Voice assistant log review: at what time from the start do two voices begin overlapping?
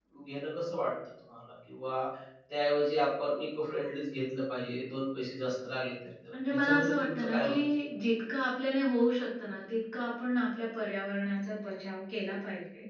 6.3 s

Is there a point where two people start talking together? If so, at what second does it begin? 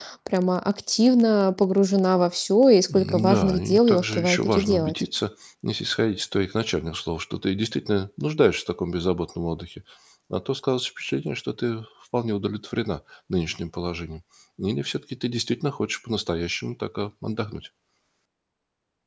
2.9 s

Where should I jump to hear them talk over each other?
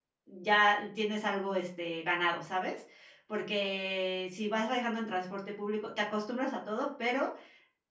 none

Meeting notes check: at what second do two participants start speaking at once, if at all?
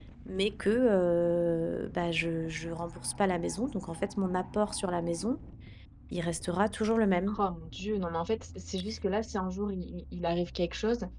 none

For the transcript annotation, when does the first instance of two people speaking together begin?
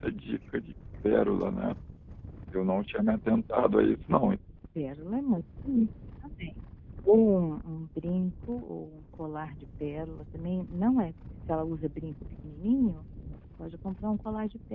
none

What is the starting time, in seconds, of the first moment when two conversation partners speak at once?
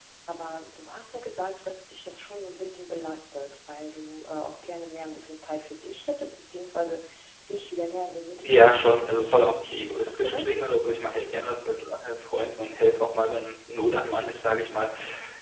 8.4 s

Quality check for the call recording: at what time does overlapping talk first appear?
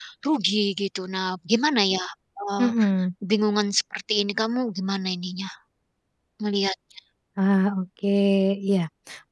none

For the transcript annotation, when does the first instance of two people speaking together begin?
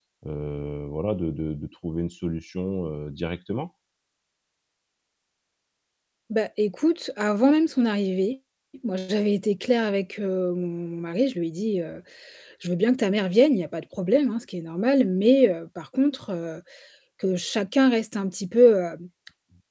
none

